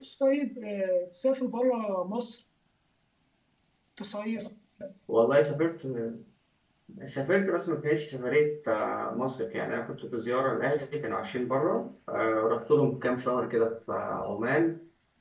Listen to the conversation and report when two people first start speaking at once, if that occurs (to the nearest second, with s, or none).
none